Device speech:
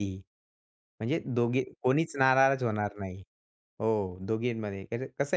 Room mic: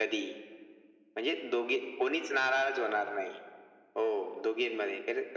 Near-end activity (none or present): none